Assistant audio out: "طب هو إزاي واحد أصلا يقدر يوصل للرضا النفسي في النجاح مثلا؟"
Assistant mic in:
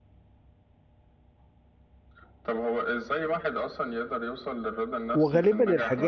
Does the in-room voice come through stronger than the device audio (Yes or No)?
Yes